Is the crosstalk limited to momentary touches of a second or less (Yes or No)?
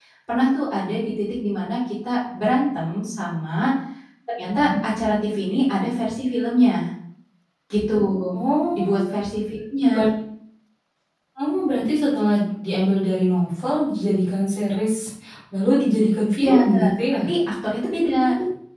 Yes